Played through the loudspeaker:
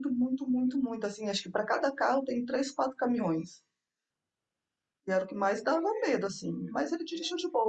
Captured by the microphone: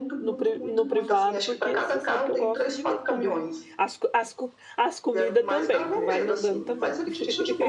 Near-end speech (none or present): present